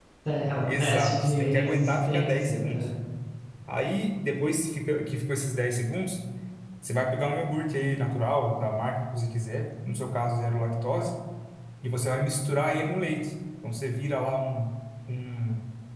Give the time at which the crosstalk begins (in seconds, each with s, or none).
0.6 s